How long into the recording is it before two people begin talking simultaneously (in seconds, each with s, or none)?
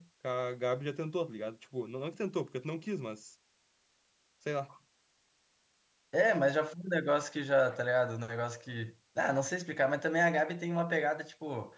none